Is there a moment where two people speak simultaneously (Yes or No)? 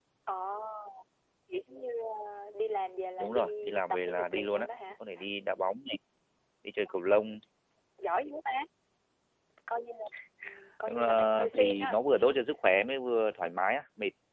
Yes